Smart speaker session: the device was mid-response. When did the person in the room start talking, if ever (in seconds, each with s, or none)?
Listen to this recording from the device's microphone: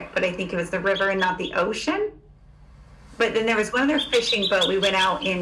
none